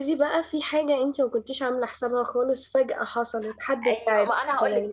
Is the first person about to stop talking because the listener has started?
Yes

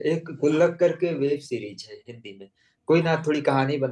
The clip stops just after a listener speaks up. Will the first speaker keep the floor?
Yes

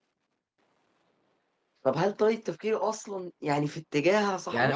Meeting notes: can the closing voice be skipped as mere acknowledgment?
No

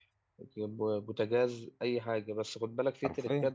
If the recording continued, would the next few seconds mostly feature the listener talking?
No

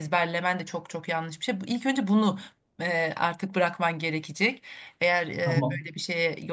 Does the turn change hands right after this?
No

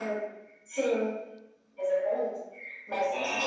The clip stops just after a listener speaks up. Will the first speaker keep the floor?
No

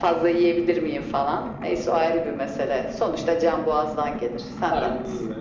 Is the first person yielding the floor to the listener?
Yes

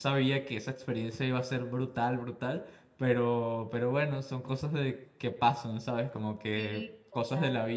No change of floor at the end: Yes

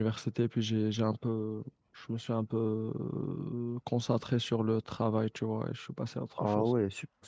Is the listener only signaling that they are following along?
No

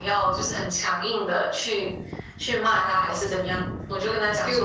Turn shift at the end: Yes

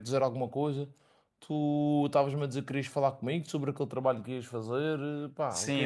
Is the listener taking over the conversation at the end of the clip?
Yes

